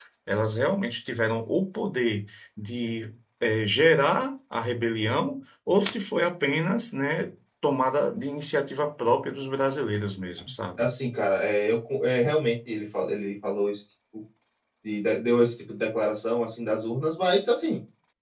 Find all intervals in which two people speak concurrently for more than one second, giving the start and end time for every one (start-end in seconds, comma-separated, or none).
none